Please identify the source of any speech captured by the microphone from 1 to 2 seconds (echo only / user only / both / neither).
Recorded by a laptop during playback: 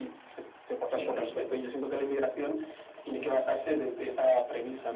both